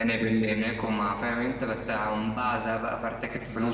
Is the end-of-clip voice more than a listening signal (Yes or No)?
Yes